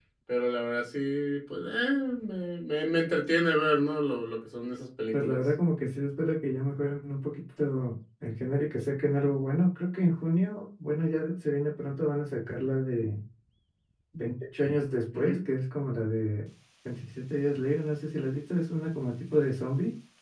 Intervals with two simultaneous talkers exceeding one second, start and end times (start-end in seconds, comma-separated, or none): none